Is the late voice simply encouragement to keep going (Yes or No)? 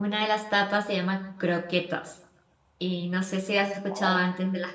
No